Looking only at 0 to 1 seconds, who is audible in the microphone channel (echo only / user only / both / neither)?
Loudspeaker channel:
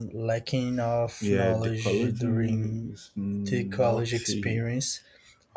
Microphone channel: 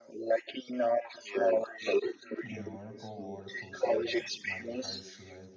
echo only